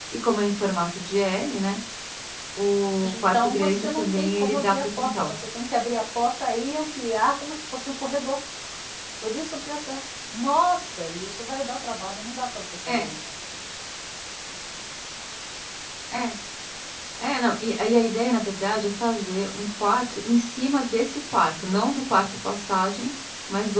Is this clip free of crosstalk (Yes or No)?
No